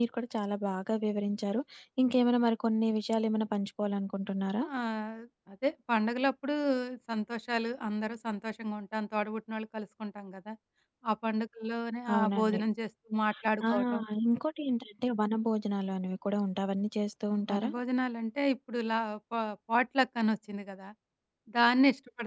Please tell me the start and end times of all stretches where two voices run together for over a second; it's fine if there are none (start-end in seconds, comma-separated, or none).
none